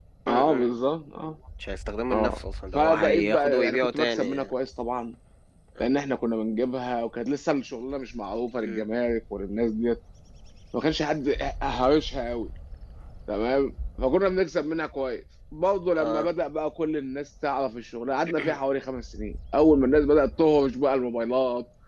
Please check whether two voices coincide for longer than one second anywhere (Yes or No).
Yes